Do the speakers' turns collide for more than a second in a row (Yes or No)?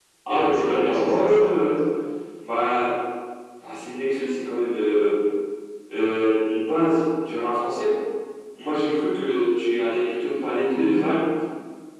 Yes